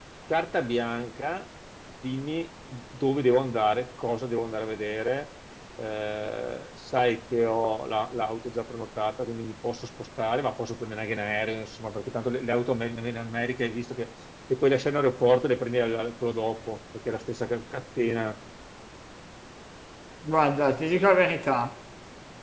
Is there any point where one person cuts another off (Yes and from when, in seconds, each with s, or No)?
No